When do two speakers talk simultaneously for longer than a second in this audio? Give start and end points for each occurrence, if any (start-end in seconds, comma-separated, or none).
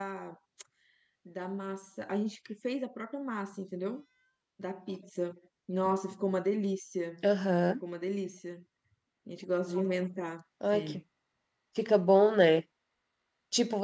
none